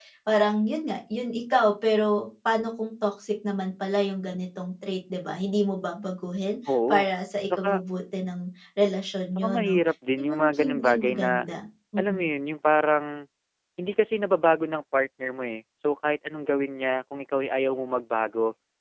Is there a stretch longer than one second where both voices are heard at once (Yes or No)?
Yes